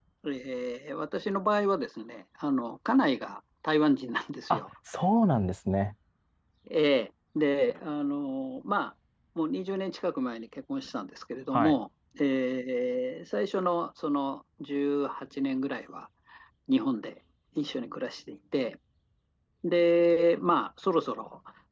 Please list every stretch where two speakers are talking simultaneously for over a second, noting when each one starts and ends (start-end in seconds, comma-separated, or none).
none